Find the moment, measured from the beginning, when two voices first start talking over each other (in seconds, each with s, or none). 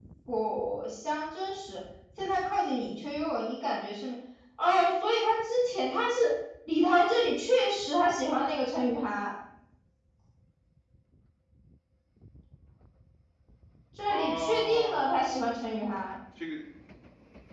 14.1 s